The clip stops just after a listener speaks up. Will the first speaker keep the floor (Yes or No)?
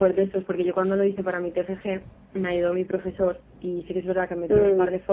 Yes